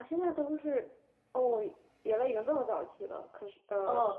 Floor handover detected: Yes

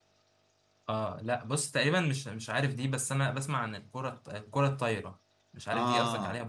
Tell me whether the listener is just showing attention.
No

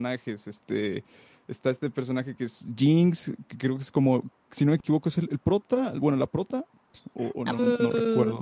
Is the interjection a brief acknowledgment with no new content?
No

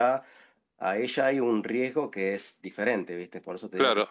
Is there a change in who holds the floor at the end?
Yes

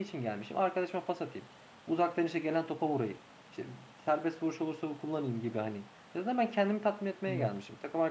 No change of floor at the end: Yes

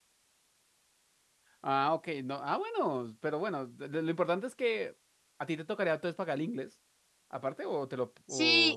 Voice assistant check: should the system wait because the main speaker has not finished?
No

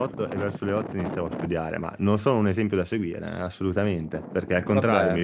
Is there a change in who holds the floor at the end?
No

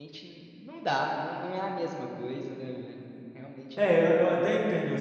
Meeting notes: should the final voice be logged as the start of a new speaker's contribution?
Yes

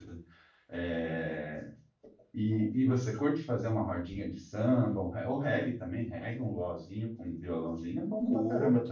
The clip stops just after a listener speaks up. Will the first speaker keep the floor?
No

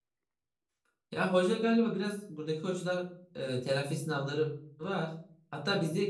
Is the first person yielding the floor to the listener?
No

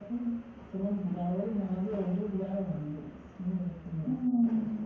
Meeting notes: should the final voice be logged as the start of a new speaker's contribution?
Yes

